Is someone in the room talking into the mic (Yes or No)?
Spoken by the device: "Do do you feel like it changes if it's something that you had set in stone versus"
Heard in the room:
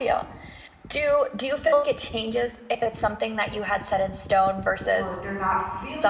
Yes